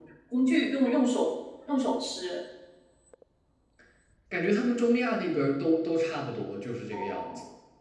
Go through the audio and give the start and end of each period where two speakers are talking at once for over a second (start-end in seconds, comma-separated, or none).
none